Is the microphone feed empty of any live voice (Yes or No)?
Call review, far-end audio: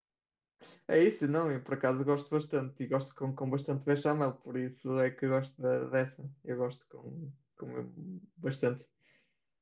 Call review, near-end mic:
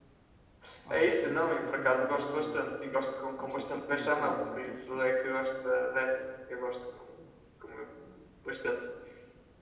No